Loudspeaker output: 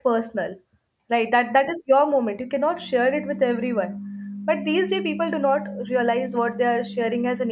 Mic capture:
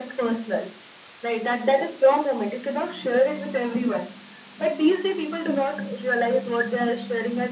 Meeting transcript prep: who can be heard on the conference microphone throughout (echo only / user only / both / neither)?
echo only